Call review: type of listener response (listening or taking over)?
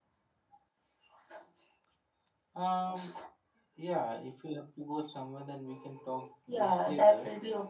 taking over